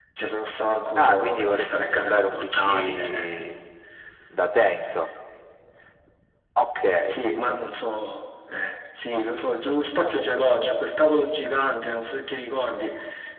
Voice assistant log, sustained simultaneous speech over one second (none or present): present